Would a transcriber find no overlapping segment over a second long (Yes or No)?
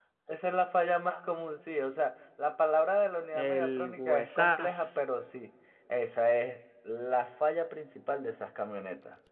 No